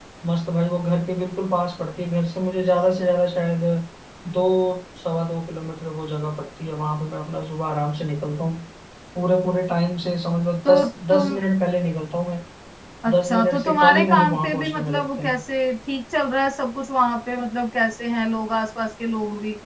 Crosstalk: present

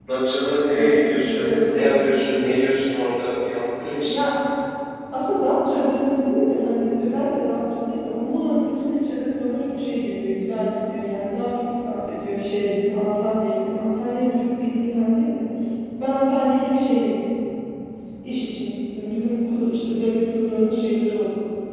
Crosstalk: present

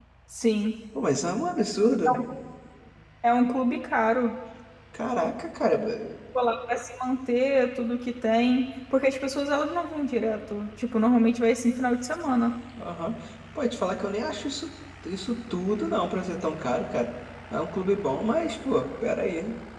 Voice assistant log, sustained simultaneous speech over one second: none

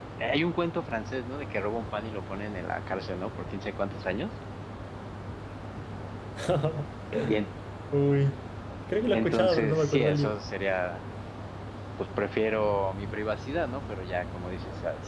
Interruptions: present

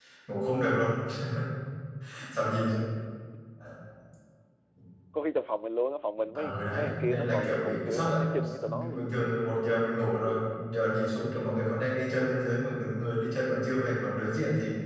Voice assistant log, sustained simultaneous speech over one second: present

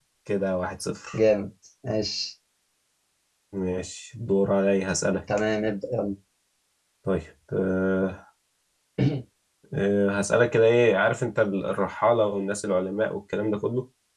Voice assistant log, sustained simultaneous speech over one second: none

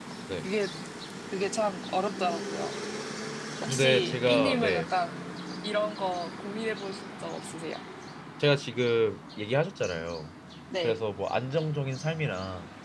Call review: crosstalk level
present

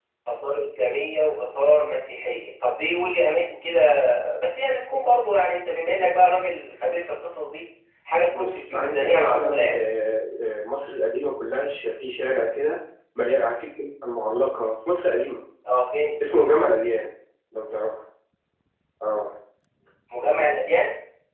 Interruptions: present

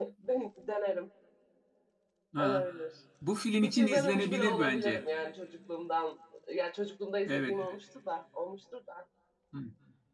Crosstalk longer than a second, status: present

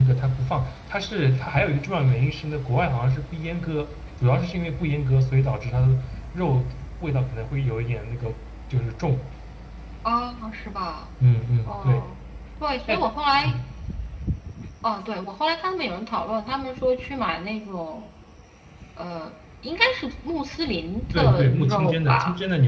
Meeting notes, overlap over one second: present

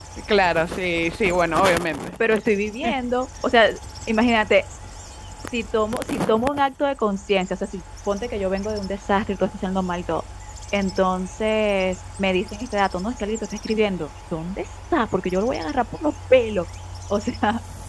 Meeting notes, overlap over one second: none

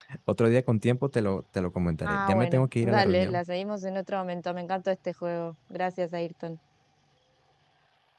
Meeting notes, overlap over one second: present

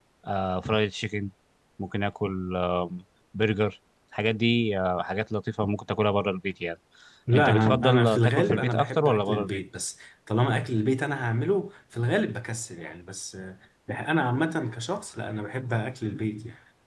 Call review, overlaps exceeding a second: present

